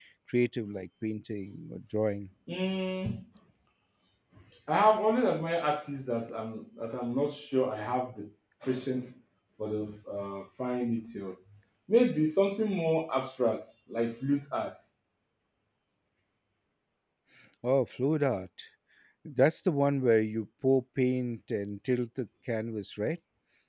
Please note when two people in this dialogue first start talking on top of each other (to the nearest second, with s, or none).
none